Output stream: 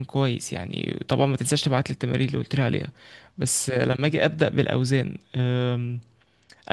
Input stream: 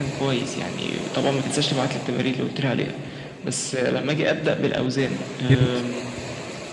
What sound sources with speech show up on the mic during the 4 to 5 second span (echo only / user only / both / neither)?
echo only